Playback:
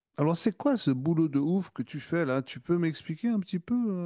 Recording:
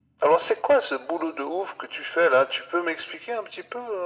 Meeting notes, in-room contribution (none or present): none